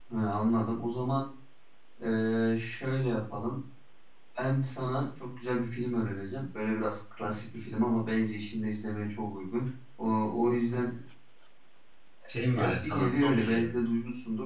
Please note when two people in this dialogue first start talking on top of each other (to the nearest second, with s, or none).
13 s